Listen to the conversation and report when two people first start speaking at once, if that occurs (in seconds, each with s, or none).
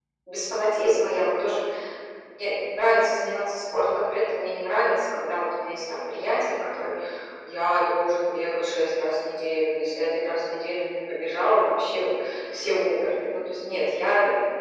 none